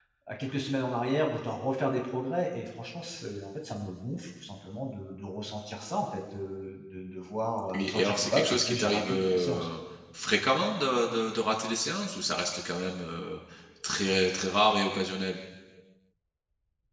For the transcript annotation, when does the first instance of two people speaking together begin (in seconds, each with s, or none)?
7.7 s